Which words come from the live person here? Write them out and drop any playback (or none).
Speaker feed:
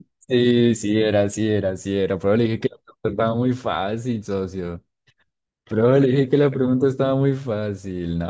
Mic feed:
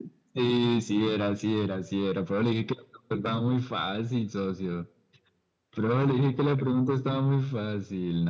none